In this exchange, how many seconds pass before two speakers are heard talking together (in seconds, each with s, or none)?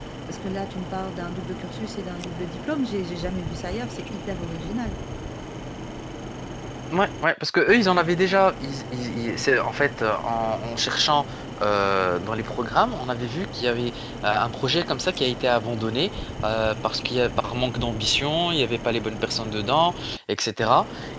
none